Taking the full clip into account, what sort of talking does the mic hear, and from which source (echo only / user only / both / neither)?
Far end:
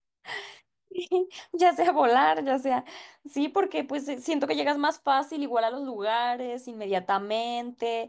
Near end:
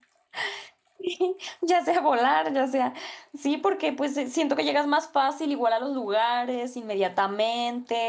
echo only